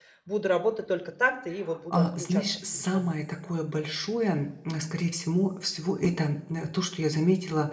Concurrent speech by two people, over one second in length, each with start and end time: 1.9-3.1

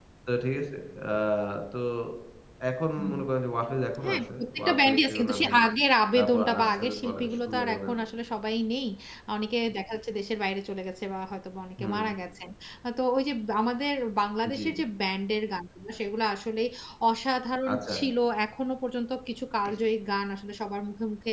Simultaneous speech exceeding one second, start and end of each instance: 4.0-5.6, 6.2-7.9

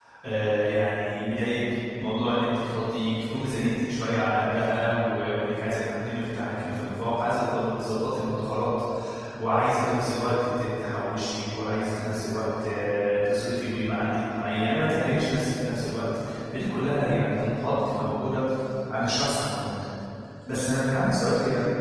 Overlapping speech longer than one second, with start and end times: none

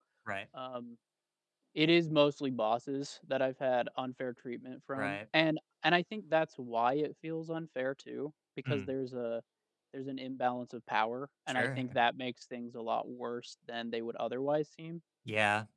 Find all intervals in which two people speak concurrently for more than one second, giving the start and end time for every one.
none

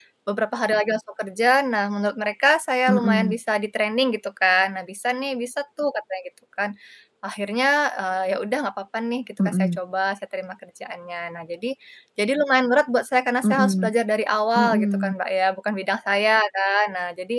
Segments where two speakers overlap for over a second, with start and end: none

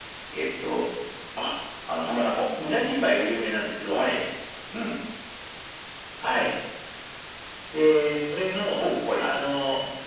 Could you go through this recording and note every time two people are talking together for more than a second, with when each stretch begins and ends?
none

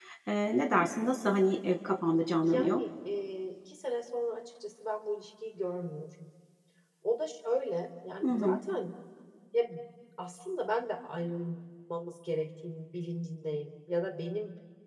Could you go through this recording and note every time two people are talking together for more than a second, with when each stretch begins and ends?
none

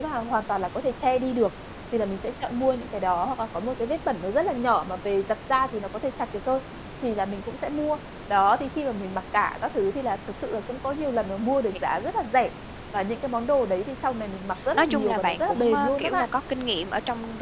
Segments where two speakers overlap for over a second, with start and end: 14.8-16.3

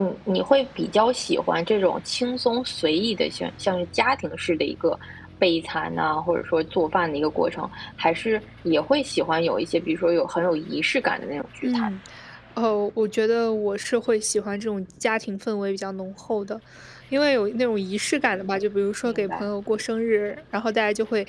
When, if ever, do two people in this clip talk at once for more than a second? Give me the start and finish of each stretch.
none

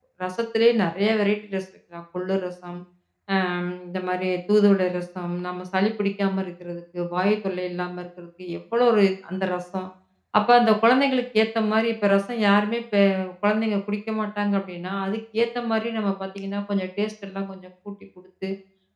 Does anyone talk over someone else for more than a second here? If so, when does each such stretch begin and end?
none

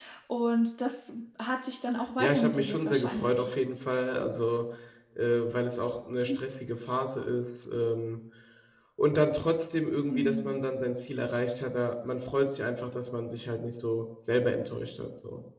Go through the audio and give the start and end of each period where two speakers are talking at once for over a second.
2.2-3.5

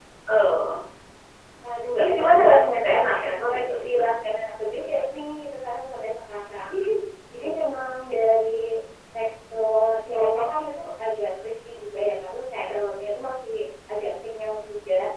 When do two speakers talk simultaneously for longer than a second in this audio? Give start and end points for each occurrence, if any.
2.0-4.2

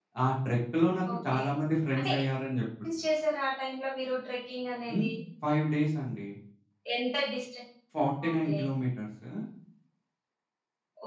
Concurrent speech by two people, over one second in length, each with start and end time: none

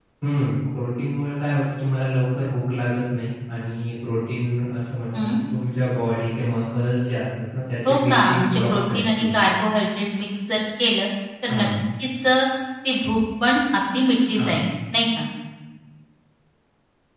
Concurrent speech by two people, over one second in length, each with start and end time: 7.8-9.5

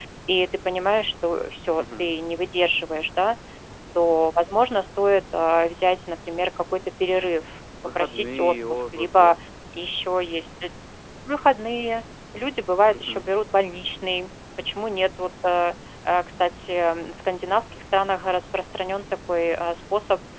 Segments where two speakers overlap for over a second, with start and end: 8.0-9.4

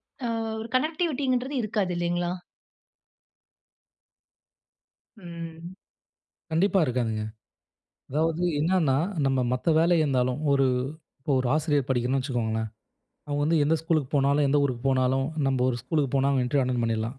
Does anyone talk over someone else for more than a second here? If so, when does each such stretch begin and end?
none

